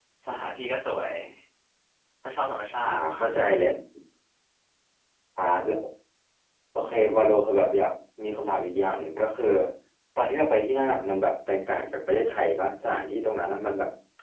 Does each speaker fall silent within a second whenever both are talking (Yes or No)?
Yes